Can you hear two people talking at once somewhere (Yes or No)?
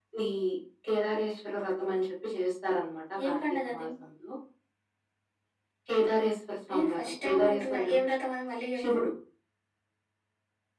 Yes